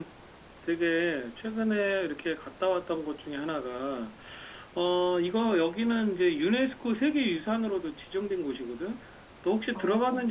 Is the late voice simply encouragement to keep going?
Yes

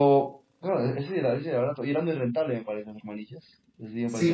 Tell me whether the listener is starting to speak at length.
Yes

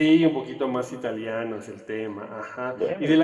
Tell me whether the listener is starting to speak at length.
No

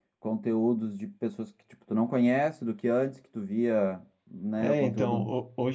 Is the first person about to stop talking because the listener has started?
Yes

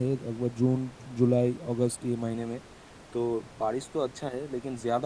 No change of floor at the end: Yes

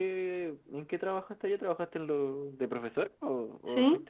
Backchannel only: No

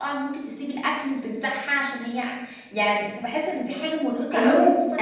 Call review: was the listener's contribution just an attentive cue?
No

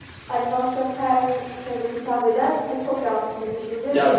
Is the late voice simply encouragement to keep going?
No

